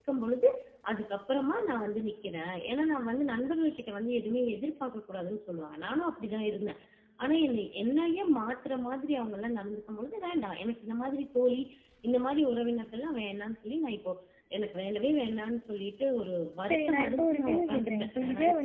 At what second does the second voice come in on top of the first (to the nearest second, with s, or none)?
17 s